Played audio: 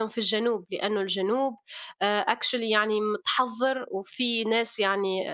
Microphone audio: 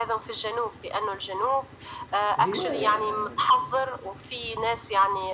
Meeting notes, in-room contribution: present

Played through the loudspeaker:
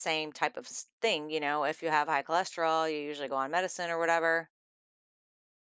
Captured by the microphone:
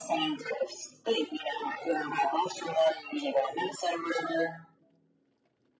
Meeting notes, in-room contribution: none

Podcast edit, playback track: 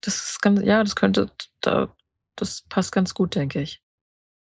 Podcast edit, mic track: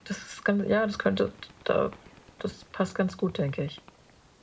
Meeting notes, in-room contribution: none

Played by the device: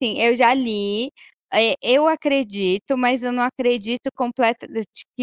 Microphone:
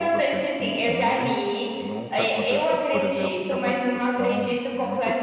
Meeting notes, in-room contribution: present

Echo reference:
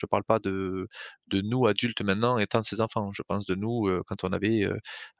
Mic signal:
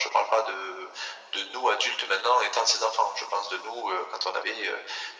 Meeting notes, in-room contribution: none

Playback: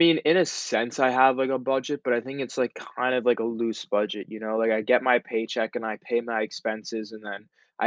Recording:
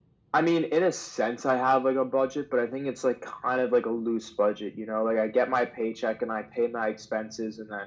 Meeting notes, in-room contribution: none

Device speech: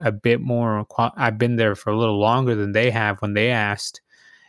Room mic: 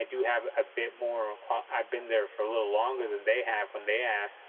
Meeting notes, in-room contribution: none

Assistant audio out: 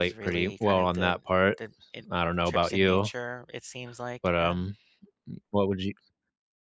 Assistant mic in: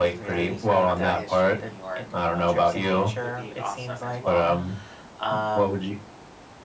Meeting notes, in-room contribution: present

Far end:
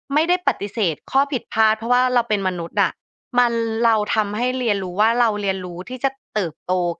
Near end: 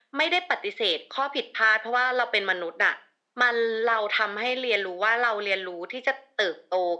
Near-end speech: none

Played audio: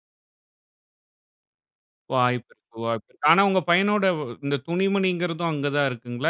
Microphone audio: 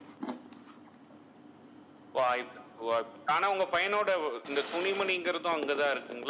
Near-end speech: none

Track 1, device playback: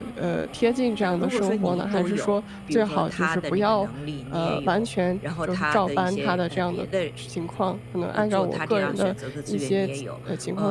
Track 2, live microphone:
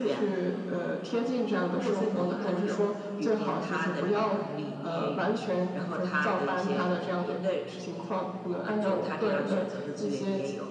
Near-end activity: none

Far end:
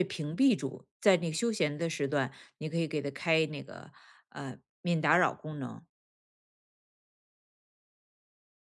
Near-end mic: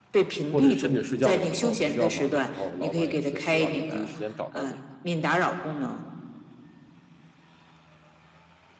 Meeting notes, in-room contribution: present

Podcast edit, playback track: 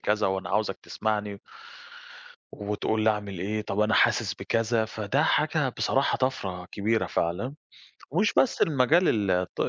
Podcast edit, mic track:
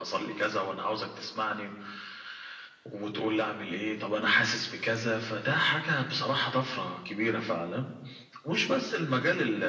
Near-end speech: none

